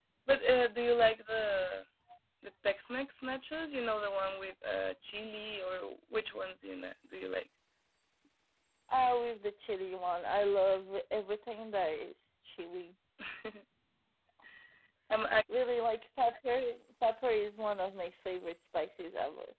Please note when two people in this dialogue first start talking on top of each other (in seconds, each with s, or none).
none